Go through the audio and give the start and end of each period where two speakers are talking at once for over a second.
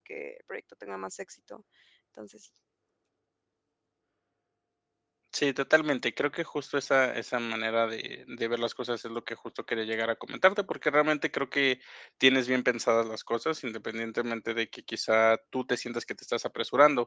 none

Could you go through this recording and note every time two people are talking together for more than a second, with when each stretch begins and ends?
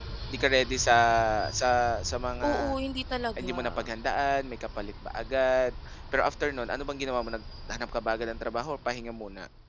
none

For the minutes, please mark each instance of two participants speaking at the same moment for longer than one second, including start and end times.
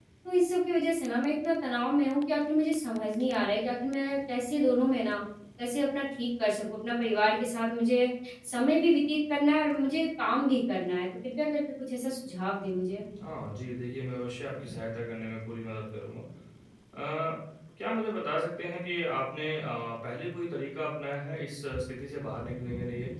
none

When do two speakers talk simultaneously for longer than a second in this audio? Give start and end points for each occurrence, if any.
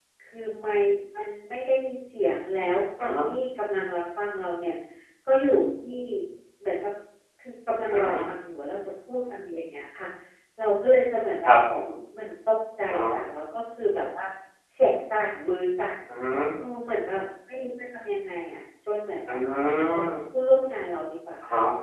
none

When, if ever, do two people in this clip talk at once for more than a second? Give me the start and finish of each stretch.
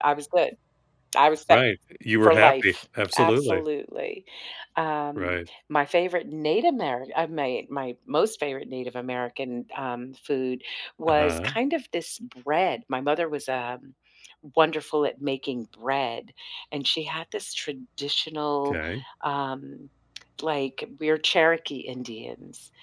2.2-3.6

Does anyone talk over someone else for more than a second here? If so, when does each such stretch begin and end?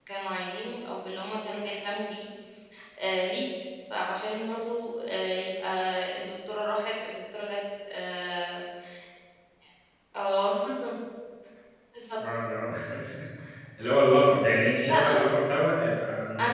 none

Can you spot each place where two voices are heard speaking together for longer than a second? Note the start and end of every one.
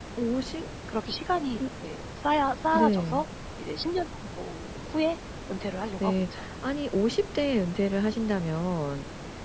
none

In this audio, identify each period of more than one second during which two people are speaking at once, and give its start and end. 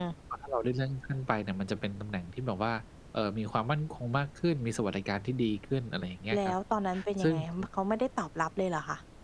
none

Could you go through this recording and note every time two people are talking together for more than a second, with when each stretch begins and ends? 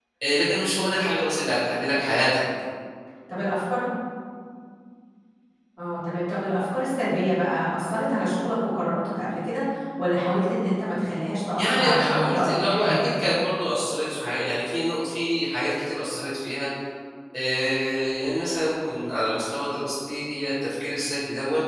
11.6-12.9

